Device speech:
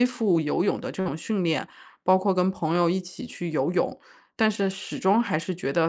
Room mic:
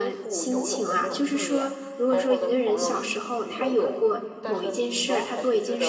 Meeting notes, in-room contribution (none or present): present